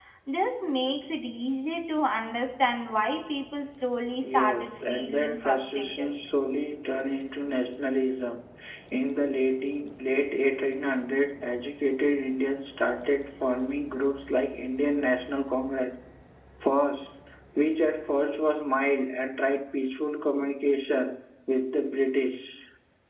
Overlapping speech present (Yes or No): Yes